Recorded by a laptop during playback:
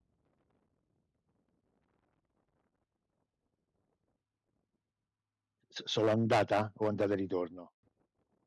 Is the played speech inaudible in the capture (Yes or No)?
Yes